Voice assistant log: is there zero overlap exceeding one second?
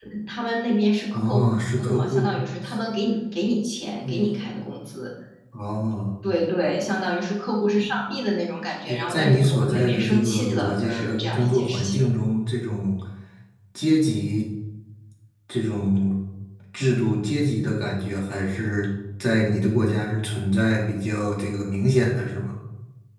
No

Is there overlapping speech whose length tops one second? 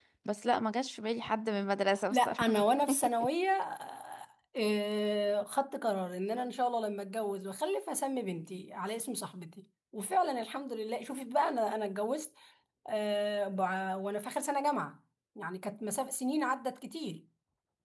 No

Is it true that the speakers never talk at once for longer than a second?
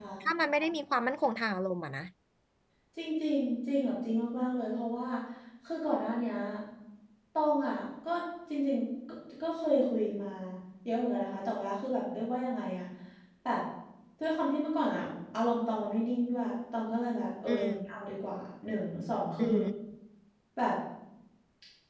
Yes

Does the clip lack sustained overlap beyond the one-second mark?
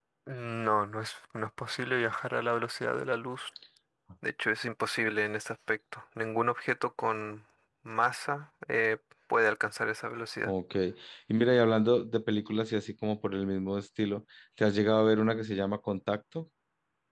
Yes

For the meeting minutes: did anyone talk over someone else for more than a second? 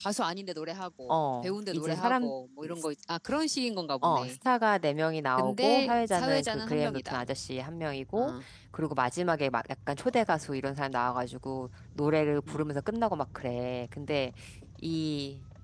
Yes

